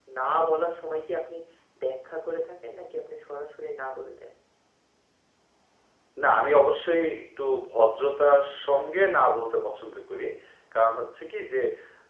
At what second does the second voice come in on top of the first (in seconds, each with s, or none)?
none